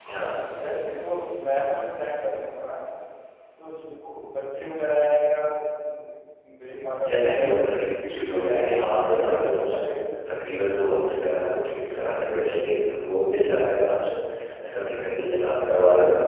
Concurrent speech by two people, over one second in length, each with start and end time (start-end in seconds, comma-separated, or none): 7.0-9.8